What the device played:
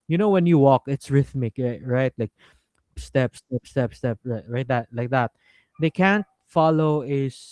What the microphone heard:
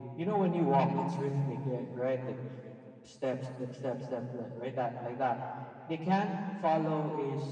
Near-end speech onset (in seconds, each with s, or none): none